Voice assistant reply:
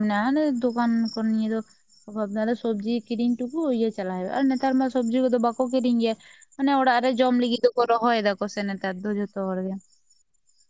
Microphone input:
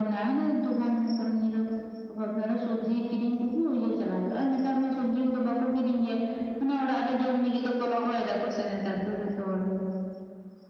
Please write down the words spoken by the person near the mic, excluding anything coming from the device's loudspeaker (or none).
none